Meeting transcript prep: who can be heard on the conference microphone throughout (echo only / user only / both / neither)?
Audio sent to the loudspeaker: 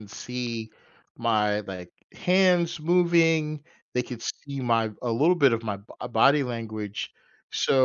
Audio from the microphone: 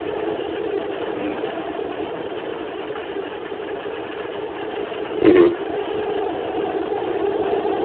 user only